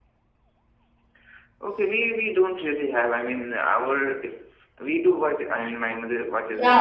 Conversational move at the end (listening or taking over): taking over